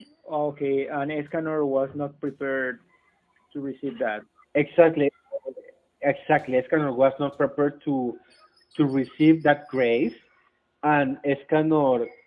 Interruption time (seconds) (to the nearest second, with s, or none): none